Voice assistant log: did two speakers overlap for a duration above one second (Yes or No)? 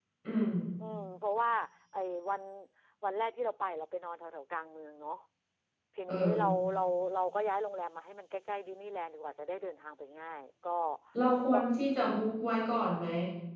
No